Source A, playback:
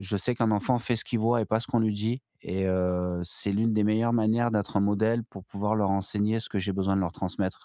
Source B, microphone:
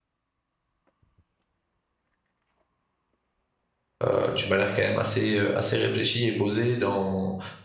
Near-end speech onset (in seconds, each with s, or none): 4.0 s